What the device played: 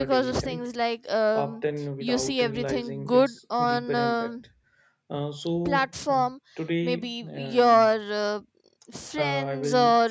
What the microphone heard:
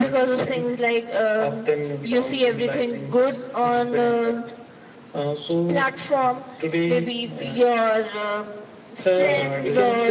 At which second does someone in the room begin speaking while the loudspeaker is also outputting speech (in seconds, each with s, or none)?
9.1 s